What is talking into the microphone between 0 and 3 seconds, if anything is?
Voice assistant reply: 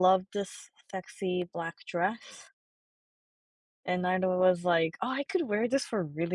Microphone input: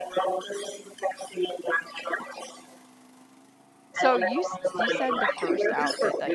echo only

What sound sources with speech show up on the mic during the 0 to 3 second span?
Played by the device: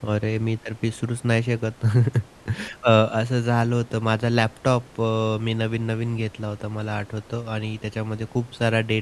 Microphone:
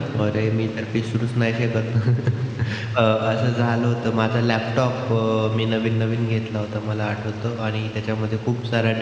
echo only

